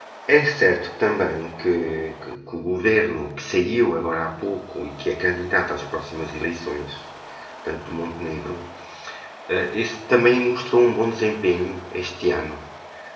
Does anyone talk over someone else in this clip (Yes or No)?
No